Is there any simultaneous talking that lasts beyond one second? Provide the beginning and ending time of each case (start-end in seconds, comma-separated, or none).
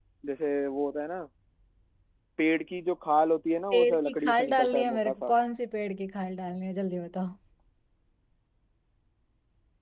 3.7-5.3